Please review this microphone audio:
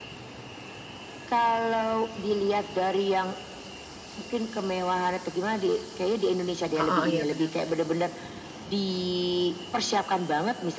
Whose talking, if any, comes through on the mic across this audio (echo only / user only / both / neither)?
both